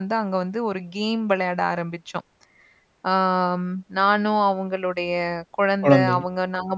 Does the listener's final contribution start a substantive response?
No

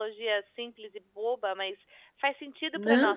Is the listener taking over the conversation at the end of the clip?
Yes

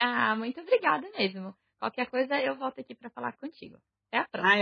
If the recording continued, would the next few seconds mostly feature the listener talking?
Yes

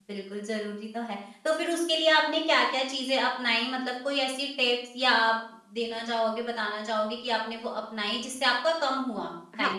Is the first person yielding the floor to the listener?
Yes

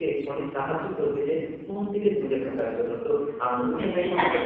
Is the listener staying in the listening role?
No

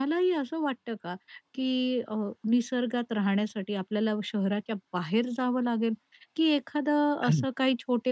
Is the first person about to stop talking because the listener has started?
No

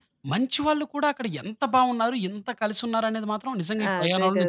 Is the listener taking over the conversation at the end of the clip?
Yes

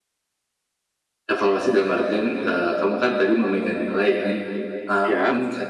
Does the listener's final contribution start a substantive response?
No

